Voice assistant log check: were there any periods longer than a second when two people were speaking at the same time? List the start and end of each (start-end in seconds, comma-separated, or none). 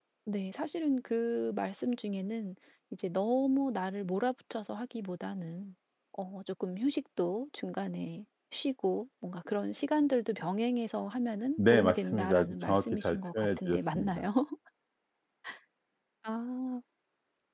11.6-14.2